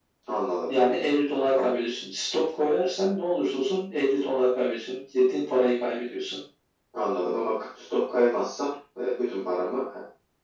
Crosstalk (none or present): none